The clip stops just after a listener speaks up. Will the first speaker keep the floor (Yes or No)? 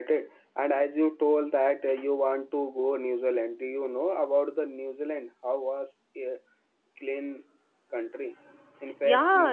No